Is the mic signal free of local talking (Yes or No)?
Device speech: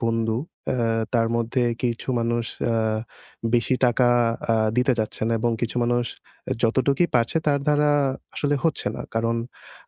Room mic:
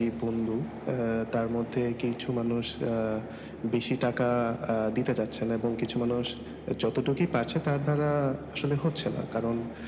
Yes